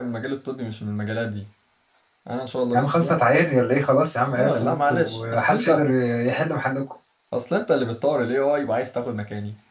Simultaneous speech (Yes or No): Yes